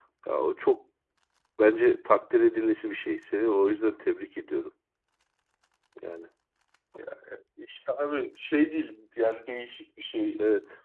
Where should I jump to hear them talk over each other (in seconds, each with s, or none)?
none